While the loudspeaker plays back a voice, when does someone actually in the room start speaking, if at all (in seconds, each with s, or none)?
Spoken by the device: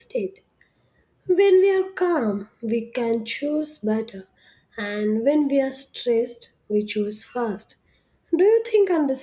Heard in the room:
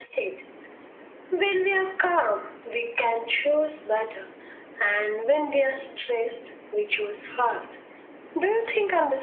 none